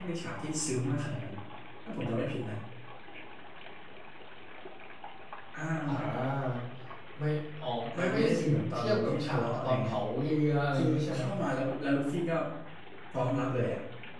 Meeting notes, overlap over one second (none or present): present